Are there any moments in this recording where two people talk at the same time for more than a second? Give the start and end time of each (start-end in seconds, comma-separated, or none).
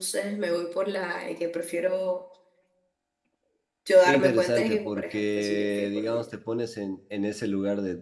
4.0-6.3